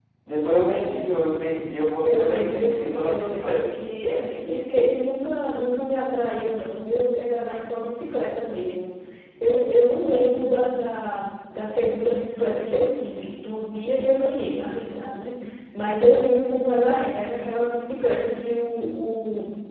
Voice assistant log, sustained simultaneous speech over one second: present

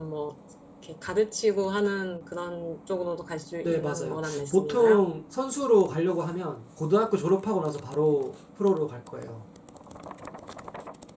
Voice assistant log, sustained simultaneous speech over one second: present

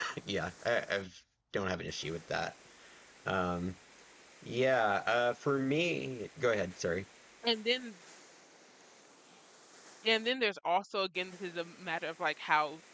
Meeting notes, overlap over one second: none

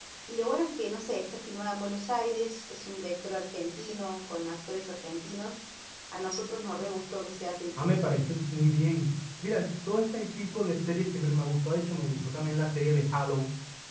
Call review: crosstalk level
none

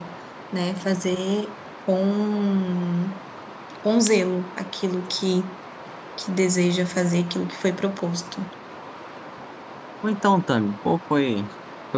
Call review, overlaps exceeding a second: none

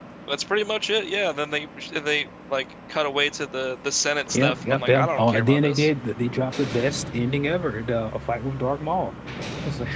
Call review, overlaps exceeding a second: present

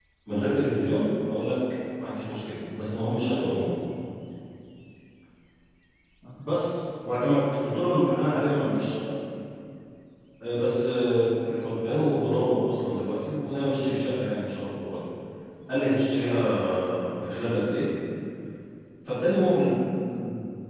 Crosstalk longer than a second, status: present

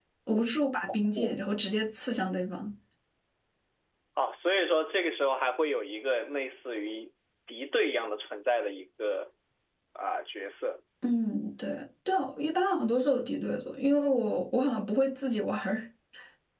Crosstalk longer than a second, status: none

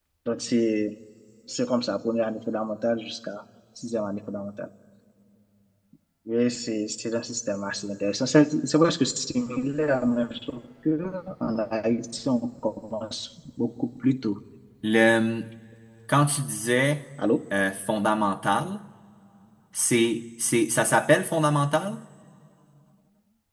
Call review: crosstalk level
none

